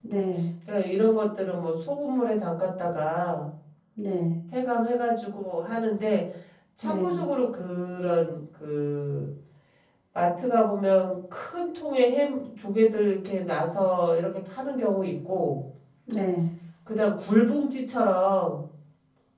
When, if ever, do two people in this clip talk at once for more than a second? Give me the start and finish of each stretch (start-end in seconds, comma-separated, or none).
none